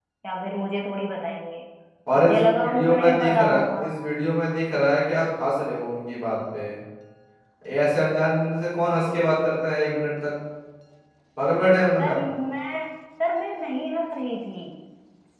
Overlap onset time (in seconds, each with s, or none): 2.2 s